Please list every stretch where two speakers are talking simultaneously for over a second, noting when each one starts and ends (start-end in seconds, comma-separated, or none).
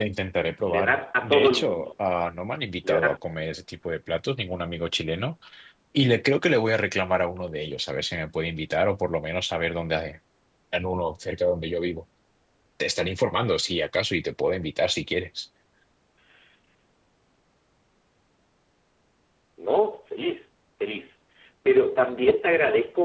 0.7-1.9